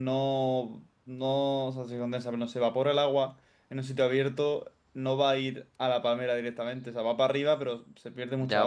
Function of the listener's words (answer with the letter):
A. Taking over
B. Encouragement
A